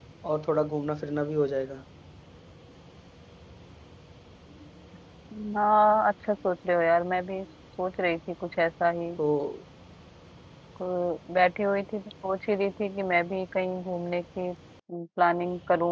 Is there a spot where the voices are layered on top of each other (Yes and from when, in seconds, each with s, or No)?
No